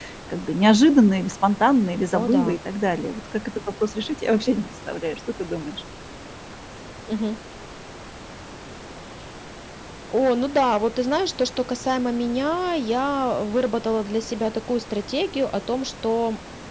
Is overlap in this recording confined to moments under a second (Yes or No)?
Yes